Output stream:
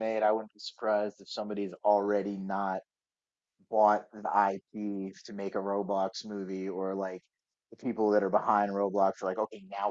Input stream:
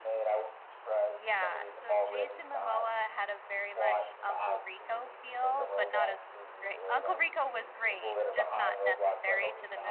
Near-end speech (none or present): present